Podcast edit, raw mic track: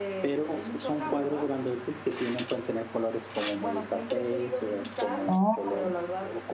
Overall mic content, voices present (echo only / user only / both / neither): both